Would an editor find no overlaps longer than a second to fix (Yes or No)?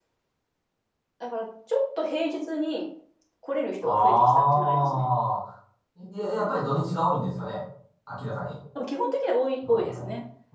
No